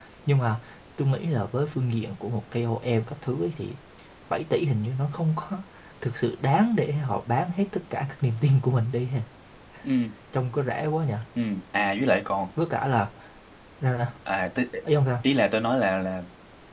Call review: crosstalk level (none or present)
none